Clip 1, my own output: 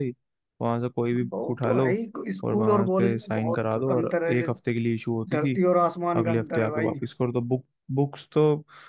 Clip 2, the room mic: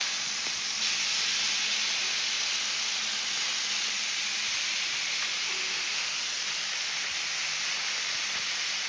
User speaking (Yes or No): No